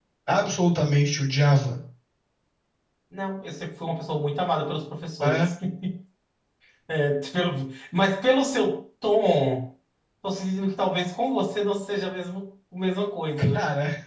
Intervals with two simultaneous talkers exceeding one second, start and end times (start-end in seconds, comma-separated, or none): none